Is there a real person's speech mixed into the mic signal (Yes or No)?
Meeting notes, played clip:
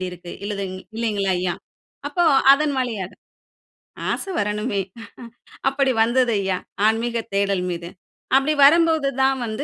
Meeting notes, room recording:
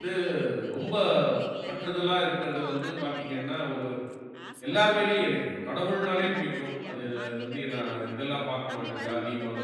Yes